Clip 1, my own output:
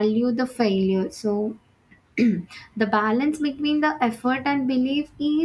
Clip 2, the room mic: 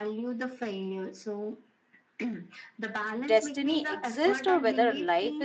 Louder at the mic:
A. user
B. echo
A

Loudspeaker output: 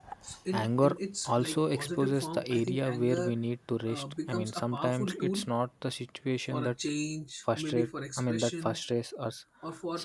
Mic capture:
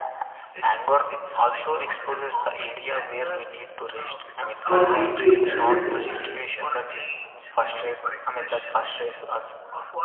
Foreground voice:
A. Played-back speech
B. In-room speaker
B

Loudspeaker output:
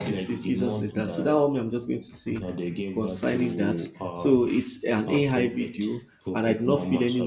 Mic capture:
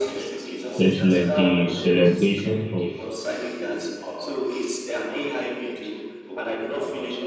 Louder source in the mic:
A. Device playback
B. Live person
B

